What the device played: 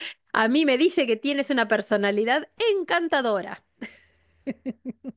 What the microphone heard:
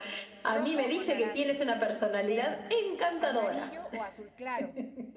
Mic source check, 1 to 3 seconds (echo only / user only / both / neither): both